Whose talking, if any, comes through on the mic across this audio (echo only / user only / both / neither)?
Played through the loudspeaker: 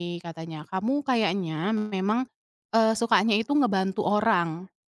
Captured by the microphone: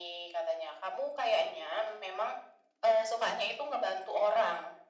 echo only